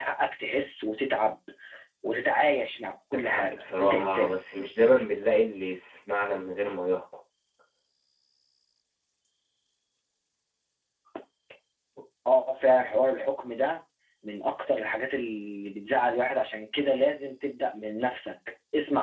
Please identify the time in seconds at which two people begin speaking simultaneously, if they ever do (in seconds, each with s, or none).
3.1 s